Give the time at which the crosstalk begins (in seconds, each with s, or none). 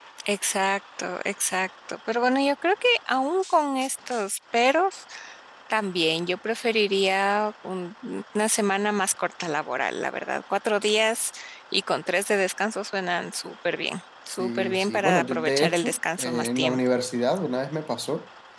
14.3 s